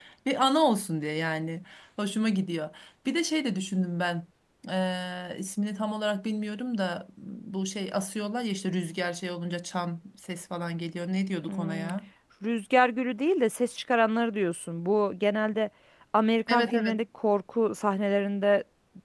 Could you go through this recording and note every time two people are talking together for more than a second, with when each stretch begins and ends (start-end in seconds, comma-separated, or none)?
none